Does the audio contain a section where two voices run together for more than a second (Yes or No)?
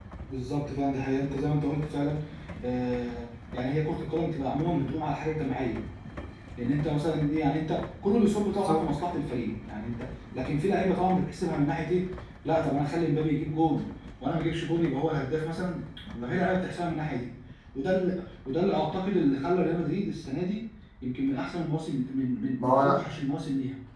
No